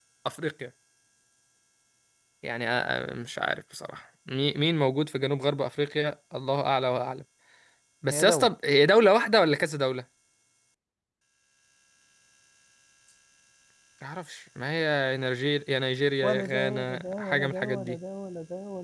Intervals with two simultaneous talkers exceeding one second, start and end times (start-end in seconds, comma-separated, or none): 16.2-18.0